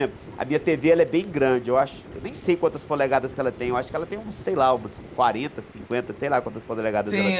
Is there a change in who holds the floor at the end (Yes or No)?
Yes